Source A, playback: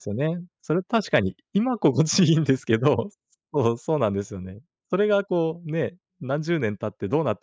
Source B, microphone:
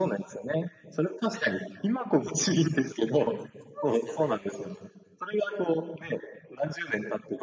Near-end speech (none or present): present